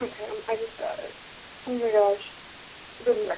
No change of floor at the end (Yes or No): Yes